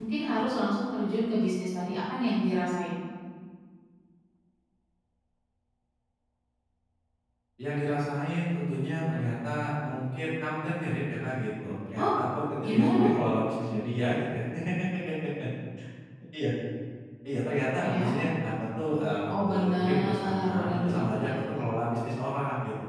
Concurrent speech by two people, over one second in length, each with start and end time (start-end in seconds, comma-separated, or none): 19.3-21.6